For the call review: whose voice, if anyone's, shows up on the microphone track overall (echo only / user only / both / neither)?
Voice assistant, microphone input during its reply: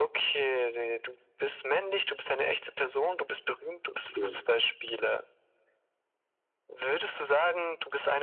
both